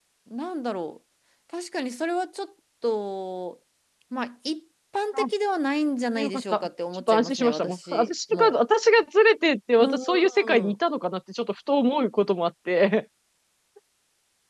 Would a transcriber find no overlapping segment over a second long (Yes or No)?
No